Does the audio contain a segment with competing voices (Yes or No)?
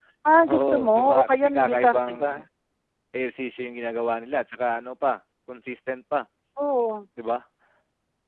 Yes